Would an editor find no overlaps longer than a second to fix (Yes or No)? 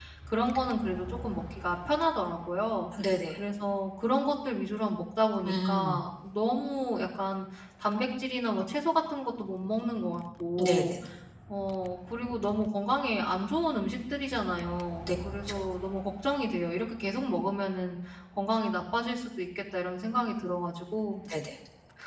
Yes